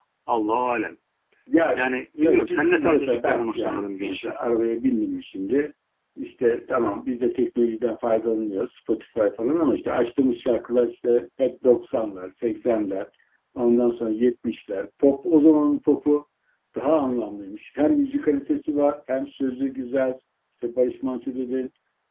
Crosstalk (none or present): present